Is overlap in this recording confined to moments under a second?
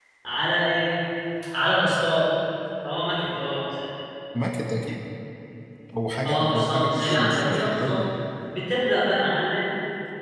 No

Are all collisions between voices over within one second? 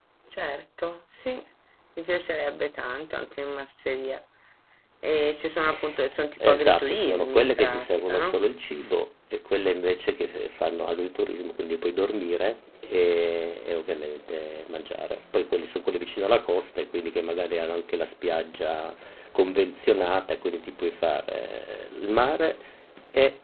No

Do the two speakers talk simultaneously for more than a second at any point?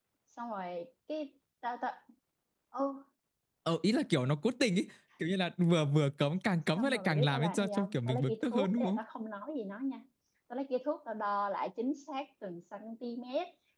Yes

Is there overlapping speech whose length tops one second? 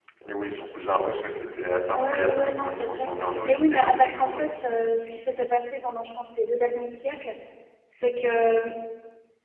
Yes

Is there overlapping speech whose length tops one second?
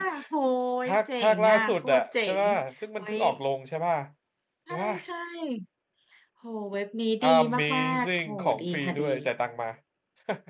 Yes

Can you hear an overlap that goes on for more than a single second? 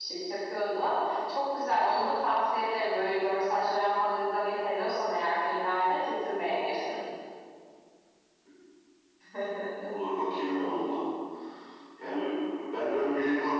No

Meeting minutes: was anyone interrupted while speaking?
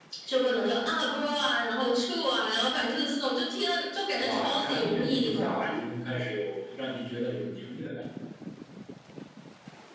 Yes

